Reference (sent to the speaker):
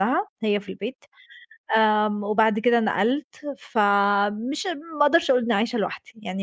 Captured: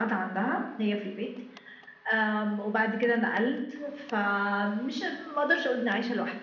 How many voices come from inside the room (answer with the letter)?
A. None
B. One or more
A